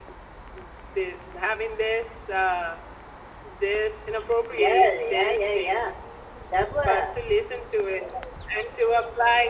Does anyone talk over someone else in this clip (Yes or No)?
Yes